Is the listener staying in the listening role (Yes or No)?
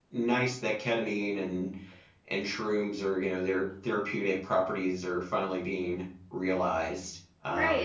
No